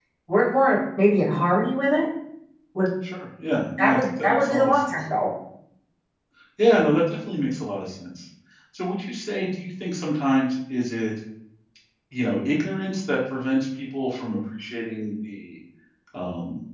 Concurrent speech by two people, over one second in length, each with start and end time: 3.8-5.0

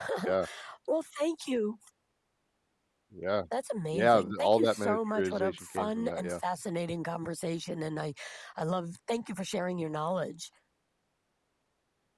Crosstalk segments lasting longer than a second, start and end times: 3.9-6.4

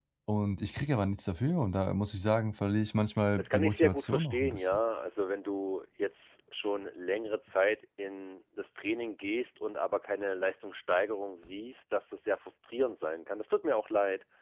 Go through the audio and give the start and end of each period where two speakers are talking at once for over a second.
3.4-4.8

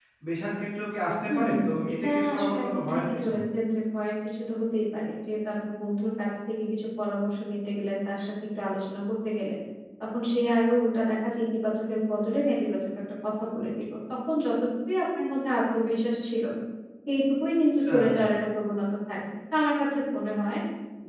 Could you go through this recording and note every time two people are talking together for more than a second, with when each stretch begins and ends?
1.9-3.3

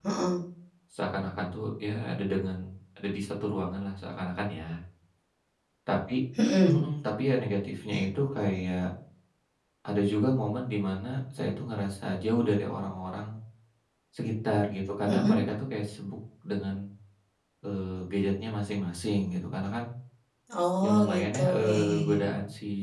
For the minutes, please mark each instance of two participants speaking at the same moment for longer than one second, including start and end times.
20.8-22.2

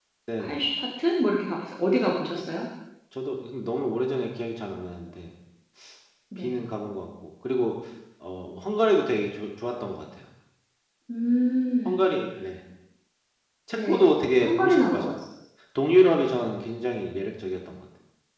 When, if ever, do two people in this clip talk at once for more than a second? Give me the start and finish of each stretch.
13.7-15.0

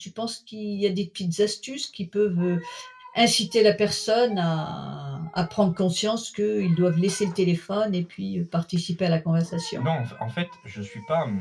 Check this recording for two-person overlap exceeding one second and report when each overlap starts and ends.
none

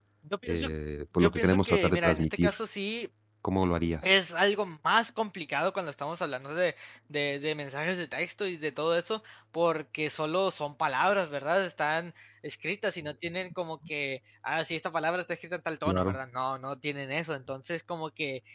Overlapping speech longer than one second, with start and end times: 1.2-2.5

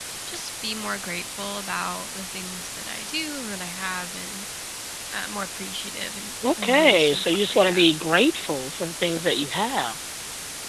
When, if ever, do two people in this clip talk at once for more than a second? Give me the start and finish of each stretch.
6.6-7.8

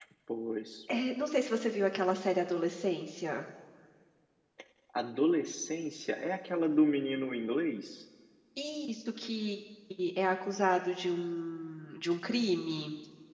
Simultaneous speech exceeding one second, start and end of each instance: none

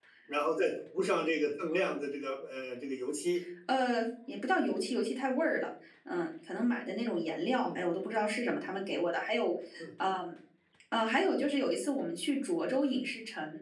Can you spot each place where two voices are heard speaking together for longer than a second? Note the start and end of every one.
none

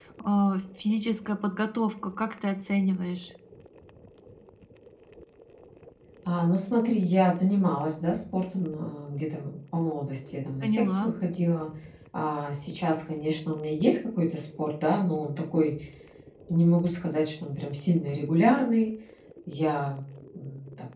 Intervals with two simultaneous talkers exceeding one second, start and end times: none

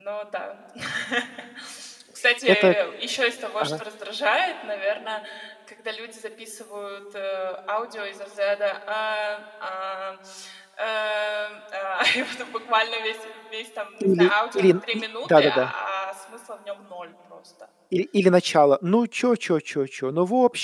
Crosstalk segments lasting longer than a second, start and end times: 14.0-15.7

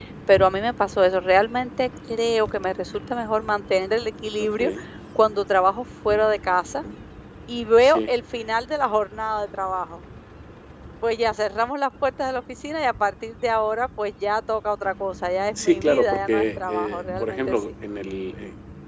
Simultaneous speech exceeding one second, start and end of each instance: 15.6-17.7

